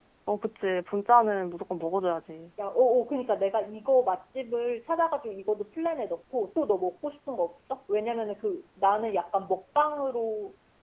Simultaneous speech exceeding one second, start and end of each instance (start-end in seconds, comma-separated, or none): none